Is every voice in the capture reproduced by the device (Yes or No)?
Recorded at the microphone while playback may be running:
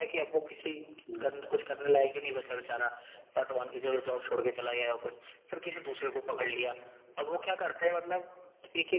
No